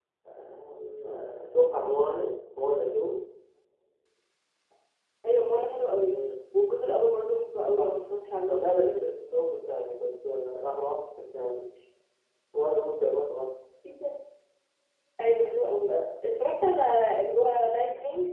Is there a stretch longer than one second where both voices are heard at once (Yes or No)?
No